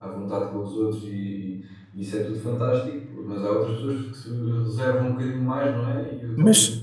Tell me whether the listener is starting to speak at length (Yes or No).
Yes